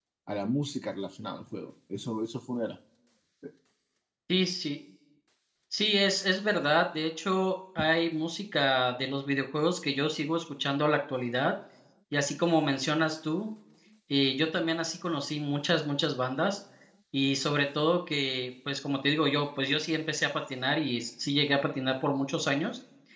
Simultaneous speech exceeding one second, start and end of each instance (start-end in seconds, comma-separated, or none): none